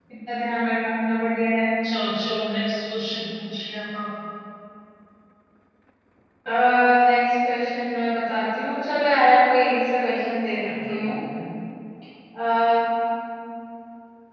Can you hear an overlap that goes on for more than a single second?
No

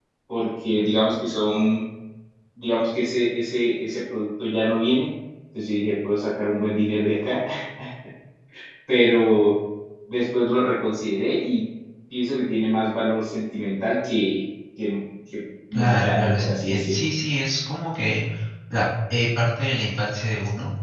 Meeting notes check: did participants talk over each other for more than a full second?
Yes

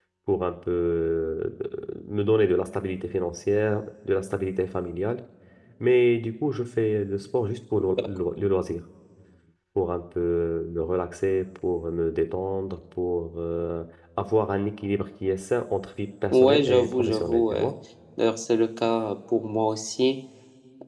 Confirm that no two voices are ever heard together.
No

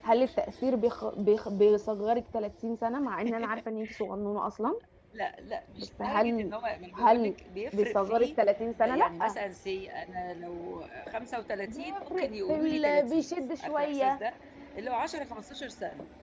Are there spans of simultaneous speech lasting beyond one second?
Yes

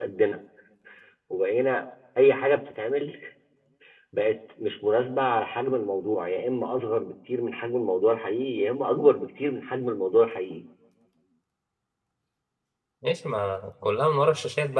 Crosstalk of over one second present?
No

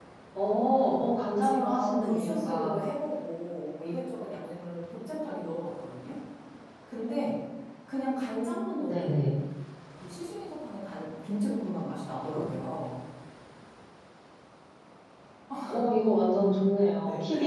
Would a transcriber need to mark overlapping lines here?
Yes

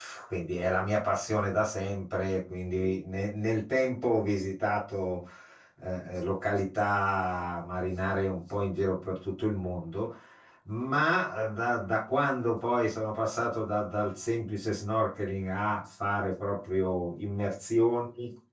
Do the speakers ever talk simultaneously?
No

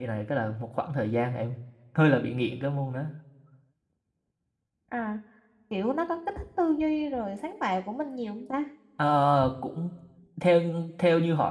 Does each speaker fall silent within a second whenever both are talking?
Yes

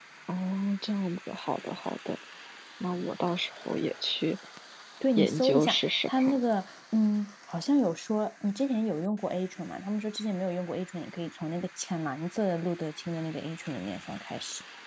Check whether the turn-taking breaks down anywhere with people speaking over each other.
Yes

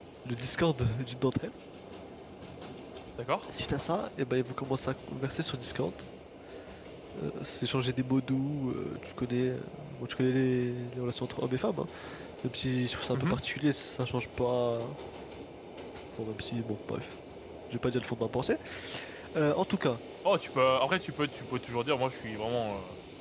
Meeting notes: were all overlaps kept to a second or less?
Yes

